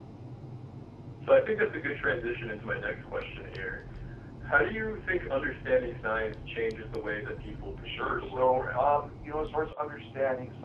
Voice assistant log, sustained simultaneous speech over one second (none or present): present